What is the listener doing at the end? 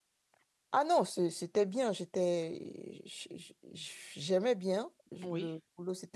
listening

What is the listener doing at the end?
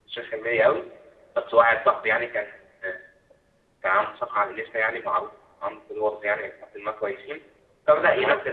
listening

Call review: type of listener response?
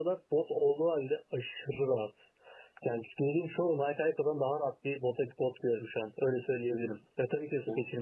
listening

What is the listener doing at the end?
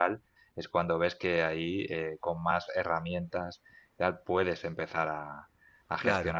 listening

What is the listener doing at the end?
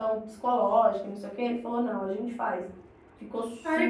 taking over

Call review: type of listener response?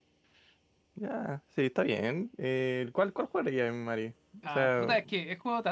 taking over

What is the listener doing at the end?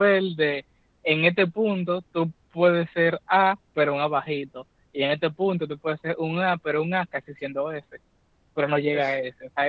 listening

